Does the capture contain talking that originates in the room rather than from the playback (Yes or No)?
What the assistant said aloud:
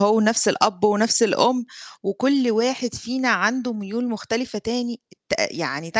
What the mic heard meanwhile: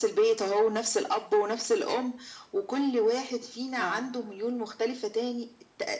Yes